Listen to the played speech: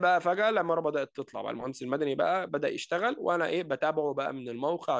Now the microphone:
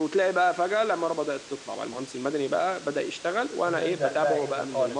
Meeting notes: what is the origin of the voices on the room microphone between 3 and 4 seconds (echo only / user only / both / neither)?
both